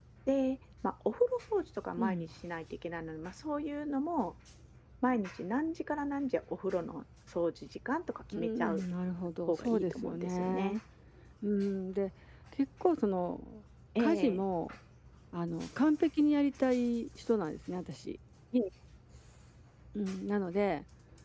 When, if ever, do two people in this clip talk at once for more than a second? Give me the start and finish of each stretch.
9.5-10.8

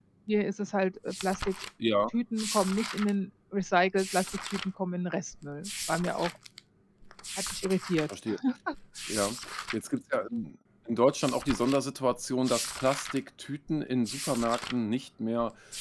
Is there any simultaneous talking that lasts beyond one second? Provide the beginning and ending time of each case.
none

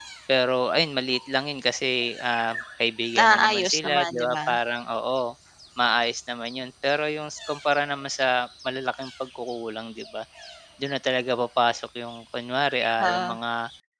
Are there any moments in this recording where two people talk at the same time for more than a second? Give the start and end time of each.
3.2-4.4

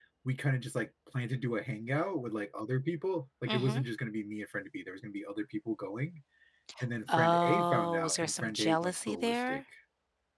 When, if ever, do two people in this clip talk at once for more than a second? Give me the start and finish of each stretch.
7.1-9.6

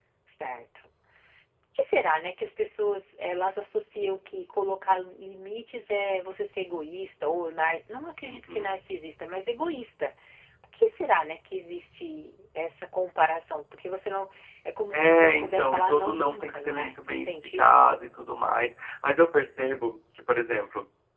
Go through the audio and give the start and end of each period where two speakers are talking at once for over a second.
14.9-18.0

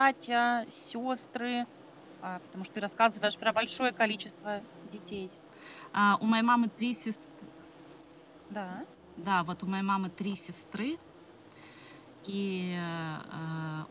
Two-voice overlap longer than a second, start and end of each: none

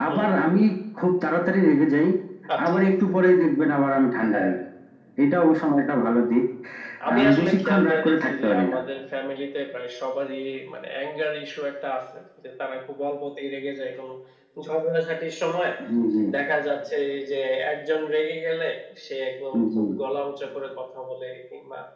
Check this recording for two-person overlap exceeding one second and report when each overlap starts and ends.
7.2-8.8

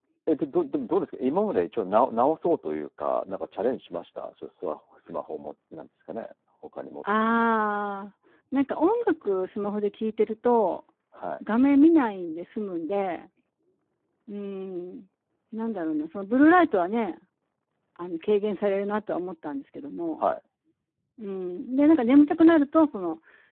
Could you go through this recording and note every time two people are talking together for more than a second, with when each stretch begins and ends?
none

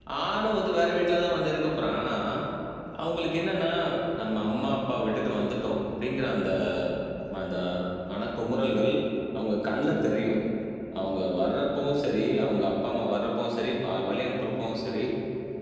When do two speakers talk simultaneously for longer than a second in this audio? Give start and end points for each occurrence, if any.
none

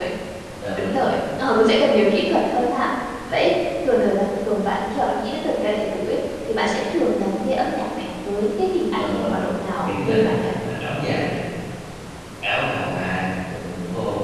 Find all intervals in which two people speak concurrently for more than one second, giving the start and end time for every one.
9.0-10.5

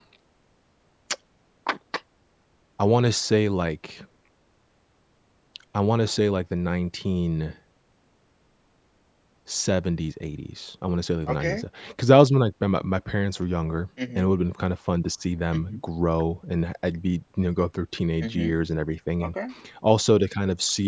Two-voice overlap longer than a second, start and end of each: none

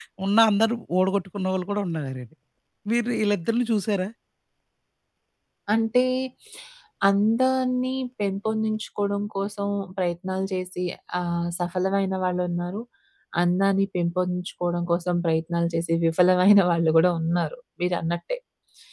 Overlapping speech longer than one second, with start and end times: none

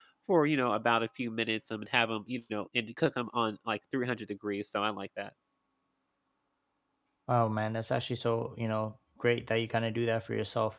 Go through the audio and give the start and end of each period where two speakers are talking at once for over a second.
none

